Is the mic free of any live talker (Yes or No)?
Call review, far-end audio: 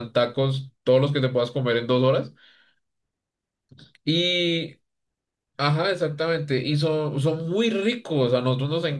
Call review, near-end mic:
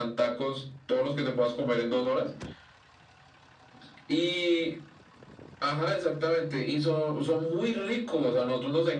Yes